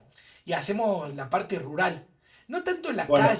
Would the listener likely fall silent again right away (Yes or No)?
Yes